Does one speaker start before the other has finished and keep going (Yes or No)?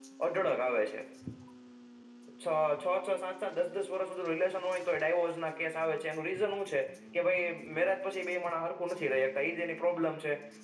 No